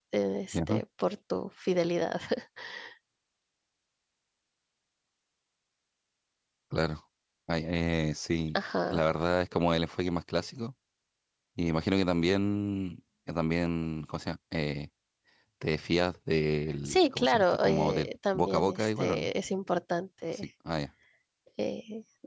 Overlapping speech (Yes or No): Yes